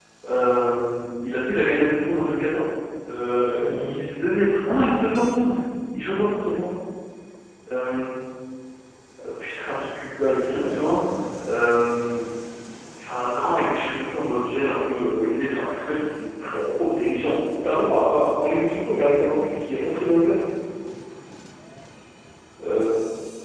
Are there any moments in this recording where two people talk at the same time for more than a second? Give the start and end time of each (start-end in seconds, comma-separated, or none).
none